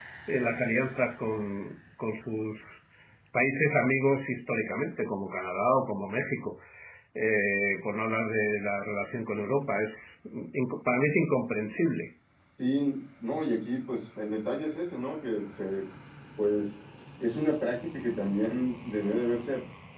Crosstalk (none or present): none